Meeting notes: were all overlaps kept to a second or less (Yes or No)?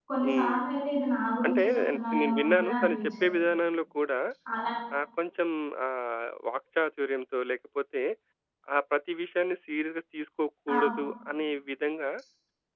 No